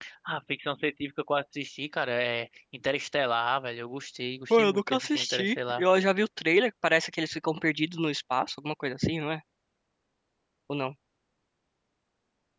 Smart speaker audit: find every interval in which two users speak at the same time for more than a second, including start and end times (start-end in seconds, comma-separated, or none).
4.5-5.8